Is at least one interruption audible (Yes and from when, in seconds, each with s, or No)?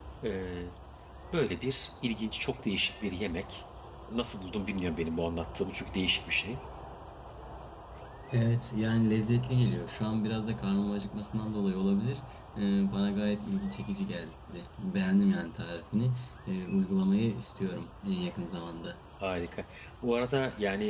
No